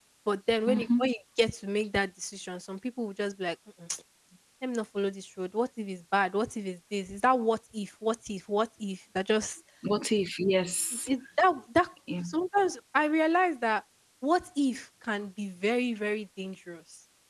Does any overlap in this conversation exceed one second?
No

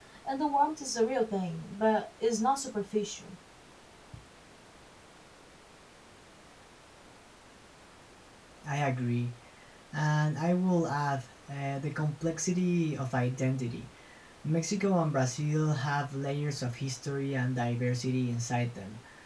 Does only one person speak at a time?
Yes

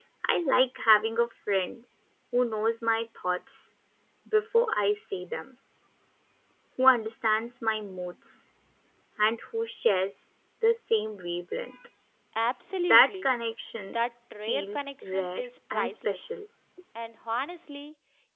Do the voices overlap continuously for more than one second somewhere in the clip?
Yes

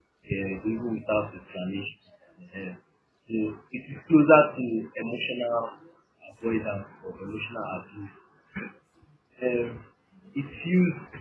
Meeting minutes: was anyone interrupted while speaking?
No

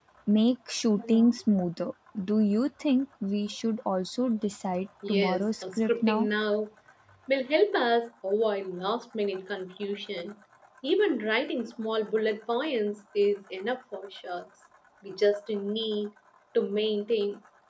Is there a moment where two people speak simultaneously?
Yes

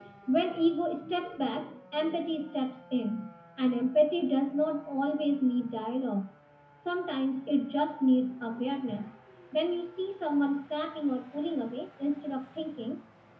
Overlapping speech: No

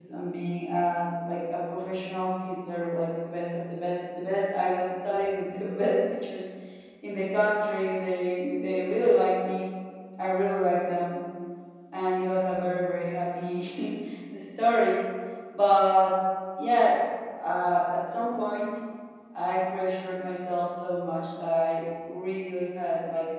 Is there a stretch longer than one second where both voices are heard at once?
No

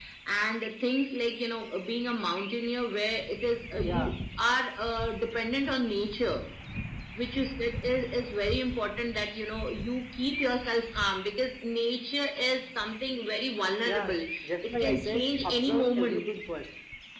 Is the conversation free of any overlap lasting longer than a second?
No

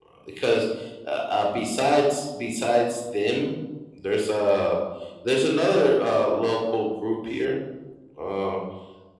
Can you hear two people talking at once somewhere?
No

